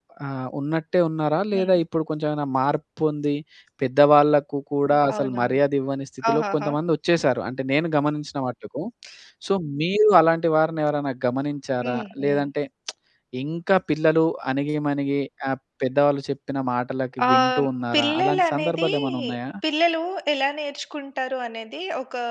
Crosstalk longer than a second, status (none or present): present